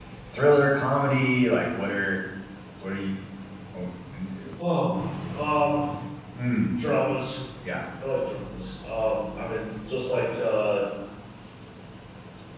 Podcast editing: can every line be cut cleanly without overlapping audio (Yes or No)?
Yes